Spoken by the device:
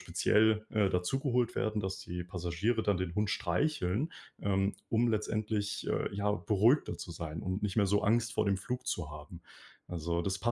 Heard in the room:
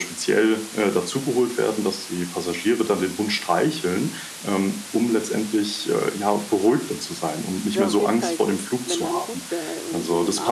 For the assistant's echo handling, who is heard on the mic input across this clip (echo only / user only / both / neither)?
both